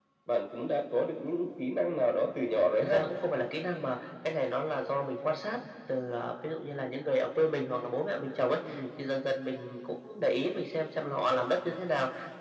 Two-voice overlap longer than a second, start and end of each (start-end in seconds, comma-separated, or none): none